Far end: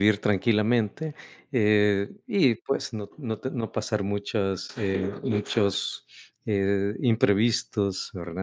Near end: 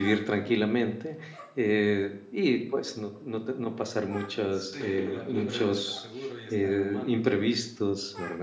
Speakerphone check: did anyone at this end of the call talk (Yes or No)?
Yes